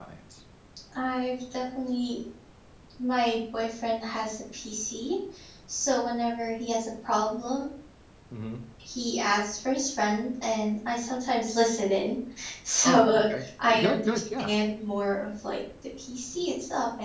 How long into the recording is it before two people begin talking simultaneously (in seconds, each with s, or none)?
12.8 s